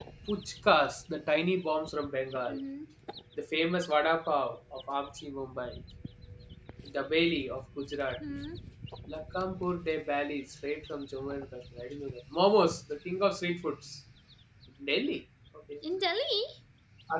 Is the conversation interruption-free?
Yes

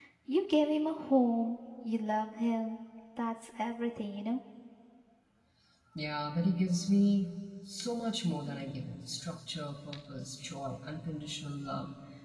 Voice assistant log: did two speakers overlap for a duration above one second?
No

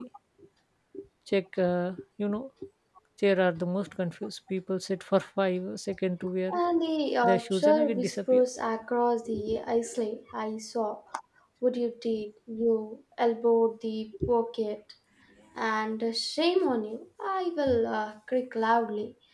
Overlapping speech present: Yes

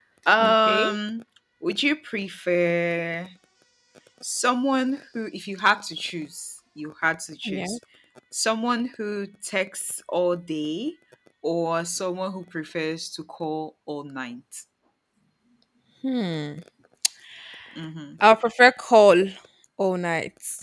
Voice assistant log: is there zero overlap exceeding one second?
Yes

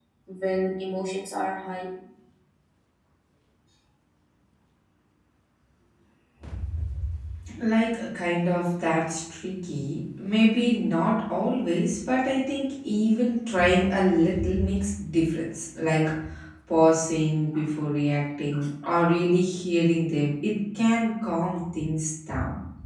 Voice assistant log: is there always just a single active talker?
Yes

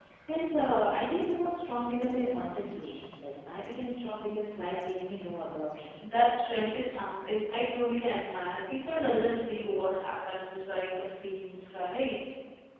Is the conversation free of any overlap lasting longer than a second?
Yes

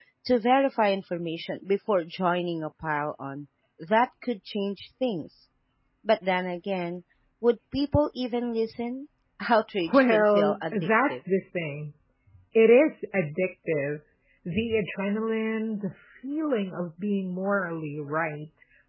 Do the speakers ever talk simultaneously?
Yes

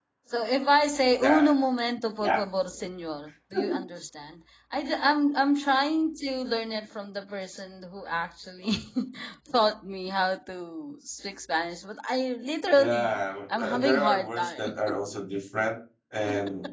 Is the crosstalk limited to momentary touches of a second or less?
No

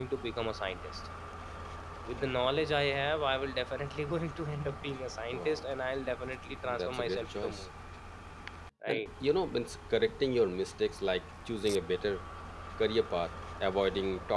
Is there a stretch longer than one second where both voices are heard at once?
Yes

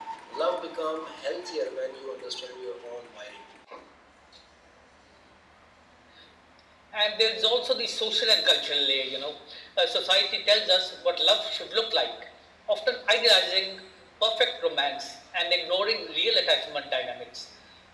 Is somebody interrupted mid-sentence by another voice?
No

